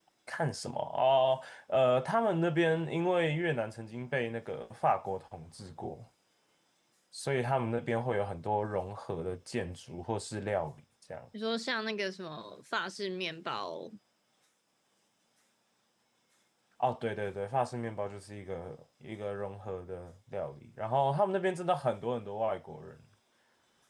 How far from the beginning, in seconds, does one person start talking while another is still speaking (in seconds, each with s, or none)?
none